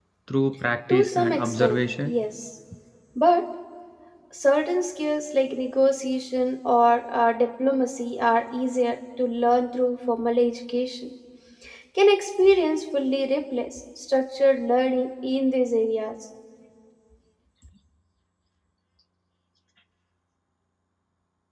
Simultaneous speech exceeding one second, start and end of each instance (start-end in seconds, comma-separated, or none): 0.9-2.1